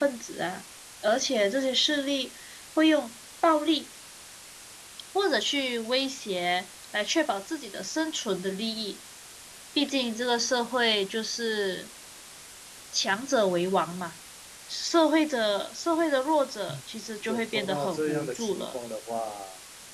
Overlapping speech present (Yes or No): Yes